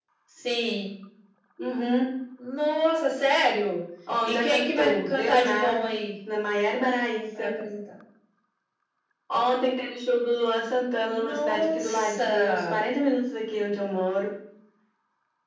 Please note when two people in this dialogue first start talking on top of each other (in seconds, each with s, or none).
4.2 s